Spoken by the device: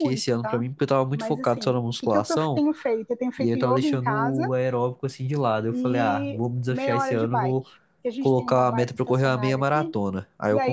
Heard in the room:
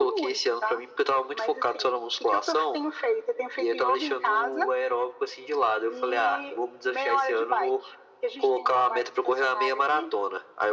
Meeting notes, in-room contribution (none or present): none